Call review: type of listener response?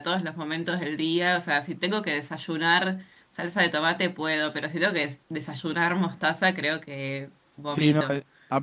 taking over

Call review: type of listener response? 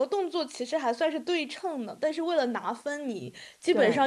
listening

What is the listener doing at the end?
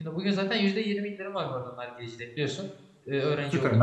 taking over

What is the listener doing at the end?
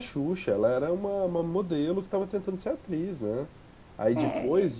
listening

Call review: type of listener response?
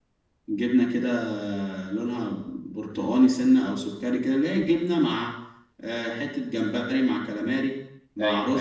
listening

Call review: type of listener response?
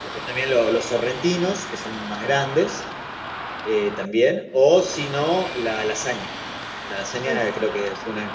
listening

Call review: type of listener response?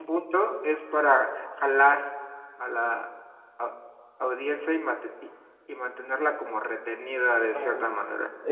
taking over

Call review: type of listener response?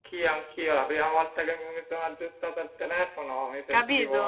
listening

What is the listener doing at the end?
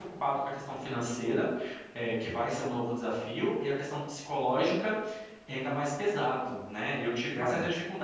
listening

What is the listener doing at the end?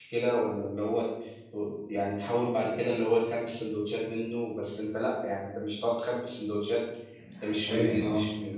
listening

